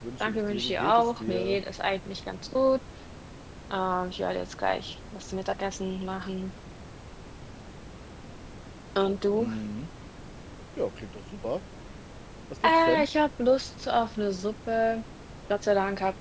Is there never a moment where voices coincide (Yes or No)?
No